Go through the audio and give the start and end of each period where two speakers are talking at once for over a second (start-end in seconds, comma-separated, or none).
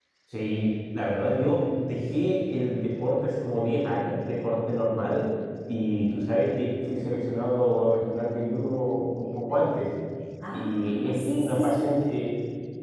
10.5-11.9